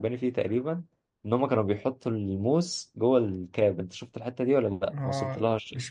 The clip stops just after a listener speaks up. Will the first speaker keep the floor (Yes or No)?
No